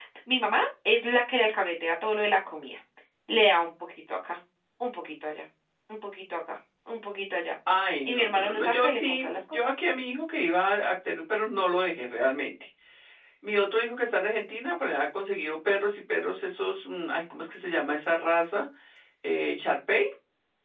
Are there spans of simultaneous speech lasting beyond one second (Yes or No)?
Yes